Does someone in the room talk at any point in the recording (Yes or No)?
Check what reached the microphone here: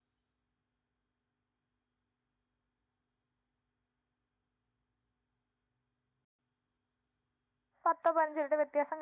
Yes